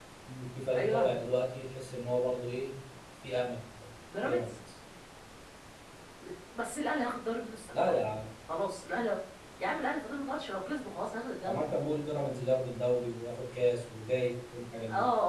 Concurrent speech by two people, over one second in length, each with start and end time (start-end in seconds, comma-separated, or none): none